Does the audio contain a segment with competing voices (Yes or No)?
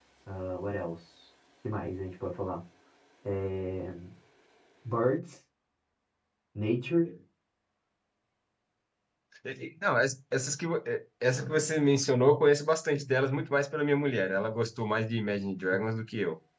No